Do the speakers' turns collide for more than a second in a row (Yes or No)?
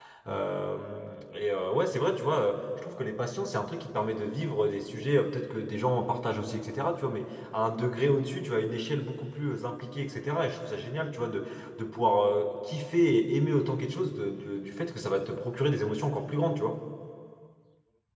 No